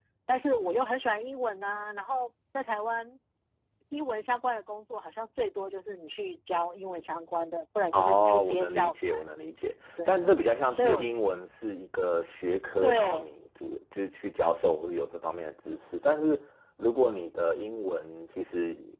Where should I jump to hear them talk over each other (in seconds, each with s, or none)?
7.9 s